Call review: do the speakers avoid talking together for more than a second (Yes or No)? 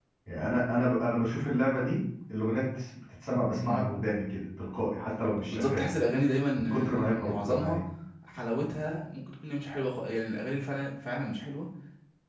No